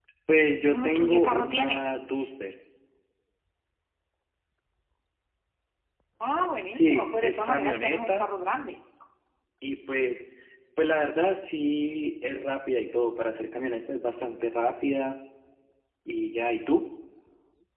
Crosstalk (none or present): present